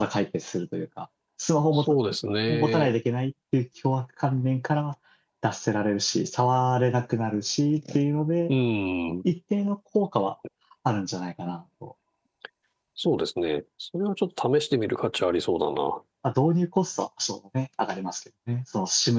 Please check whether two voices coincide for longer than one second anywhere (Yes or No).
No